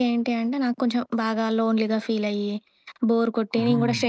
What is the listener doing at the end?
listening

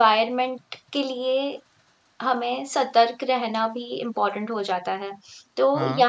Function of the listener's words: listening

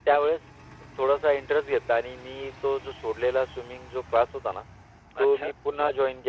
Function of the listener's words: listening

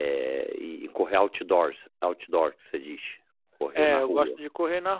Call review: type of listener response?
taking over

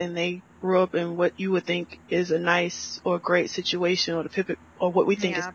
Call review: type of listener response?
taking over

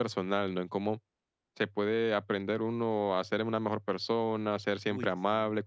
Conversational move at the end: listening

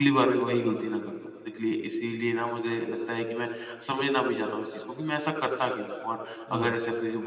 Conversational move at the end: listening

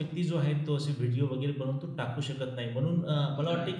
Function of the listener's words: listening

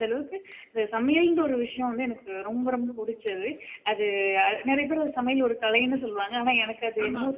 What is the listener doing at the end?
taking over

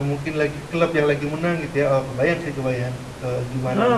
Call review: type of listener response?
taking over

